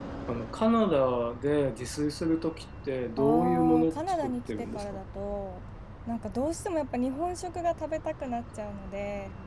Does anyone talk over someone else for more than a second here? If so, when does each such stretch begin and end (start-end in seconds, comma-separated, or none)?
3.2-4.8